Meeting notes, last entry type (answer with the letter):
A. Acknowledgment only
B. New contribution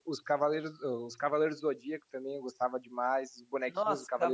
B